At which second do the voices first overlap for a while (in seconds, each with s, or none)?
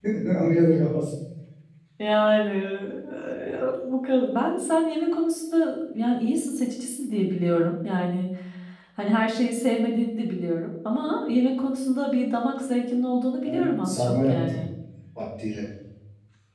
13.4 s